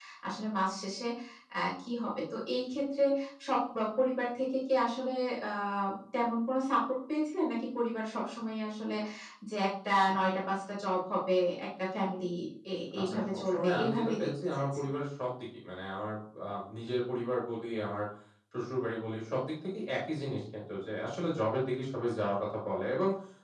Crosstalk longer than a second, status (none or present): present